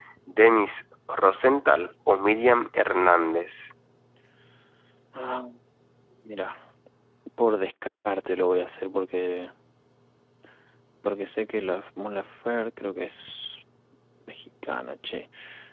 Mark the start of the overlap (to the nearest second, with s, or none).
none